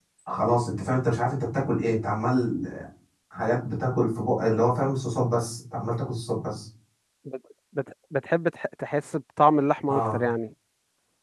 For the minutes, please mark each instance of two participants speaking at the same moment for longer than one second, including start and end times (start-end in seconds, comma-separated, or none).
none